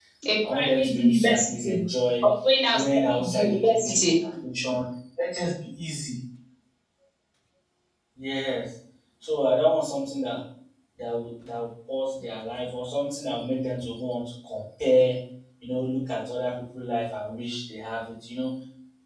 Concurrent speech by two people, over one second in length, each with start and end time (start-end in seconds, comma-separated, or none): 0.5-1.8, 2.7-4.1